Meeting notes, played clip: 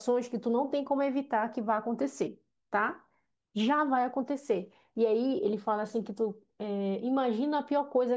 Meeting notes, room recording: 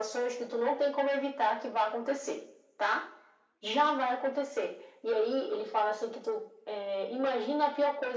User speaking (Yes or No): No